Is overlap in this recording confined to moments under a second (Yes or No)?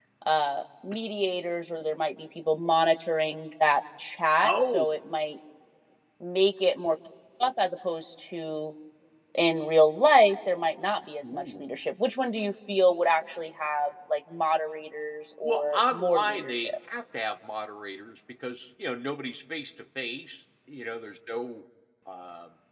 No